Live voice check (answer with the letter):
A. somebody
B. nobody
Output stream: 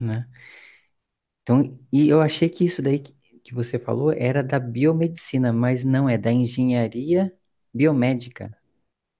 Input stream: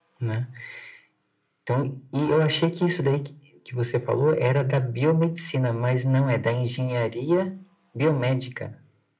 B